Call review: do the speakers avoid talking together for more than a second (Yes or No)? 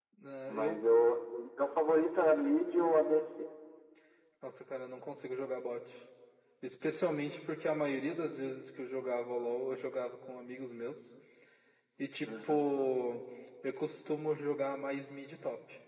Yes